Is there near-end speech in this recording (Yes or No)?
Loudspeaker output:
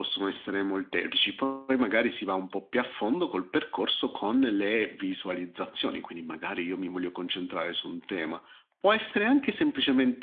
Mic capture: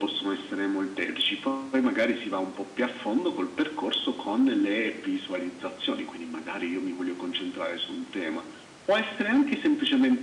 No